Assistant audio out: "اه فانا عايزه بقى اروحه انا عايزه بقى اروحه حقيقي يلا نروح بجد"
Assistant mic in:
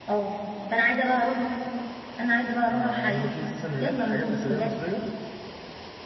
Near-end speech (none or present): present